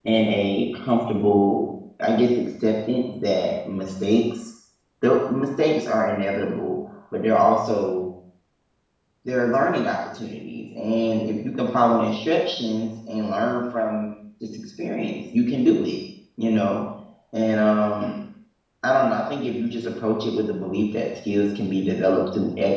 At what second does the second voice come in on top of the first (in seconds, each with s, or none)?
none